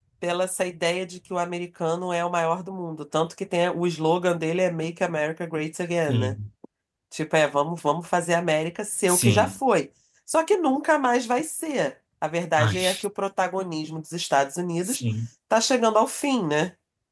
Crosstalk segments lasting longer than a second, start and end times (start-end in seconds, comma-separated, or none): none